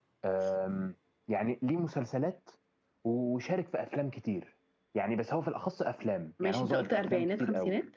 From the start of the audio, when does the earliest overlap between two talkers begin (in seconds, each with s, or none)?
6.4 s